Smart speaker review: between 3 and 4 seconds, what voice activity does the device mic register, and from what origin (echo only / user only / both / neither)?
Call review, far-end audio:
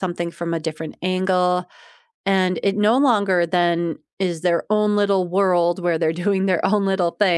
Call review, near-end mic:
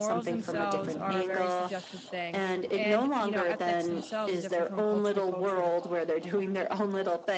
both